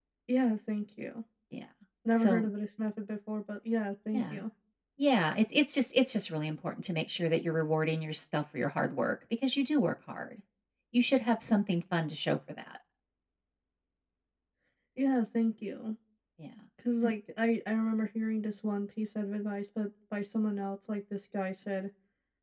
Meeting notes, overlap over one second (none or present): none